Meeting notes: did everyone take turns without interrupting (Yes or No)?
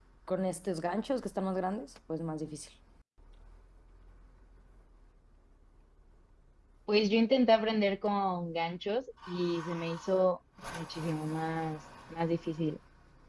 Yes